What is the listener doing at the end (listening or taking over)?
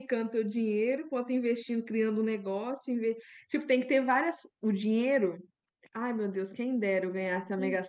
taking over